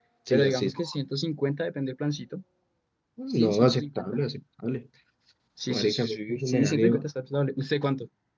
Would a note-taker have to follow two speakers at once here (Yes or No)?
Yes